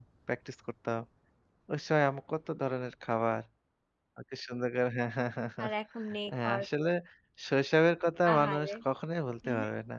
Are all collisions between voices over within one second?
Yes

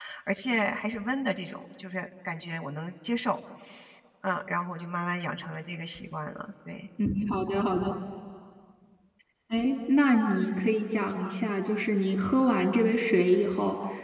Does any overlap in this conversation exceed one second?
No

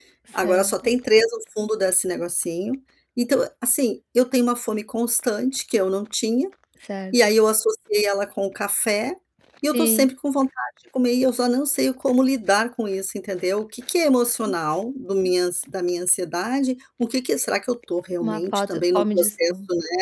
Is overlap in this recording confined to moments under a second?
No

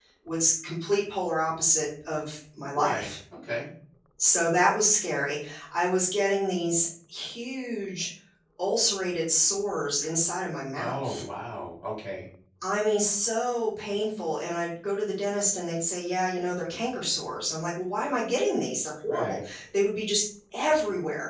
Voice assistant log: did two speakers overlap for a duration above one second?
No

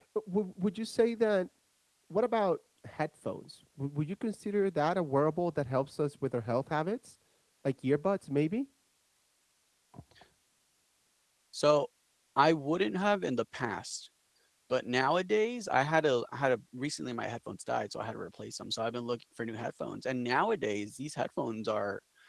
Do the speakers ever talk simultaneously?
No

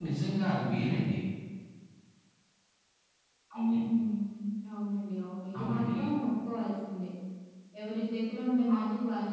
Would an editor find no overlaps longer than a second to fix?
Yes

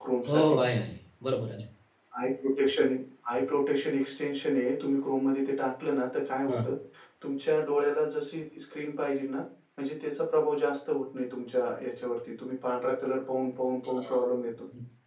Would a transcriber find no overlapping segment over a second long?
Yes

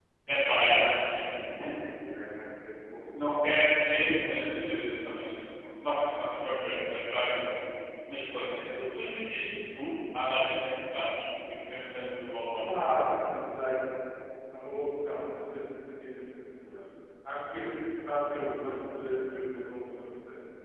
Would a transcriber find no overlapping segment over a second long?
Yes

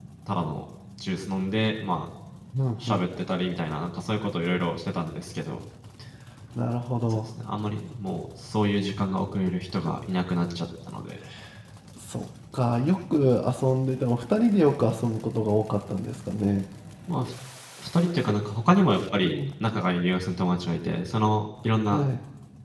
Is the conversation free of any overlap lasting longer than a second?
Yes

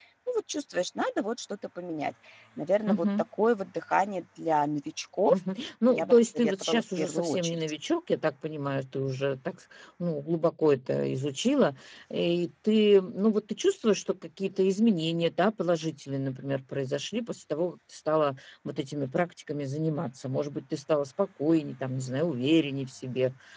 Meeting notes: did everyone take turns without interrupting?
No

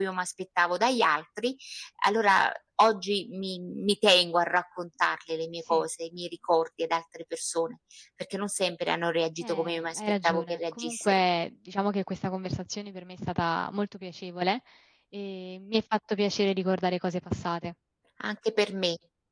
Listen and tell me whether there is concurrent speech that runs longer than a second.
Yes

